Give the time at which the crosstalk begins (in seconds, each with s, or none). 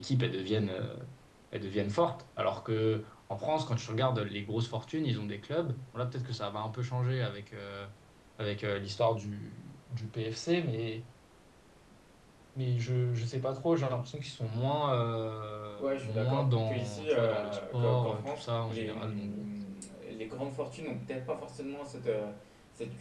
15.8 s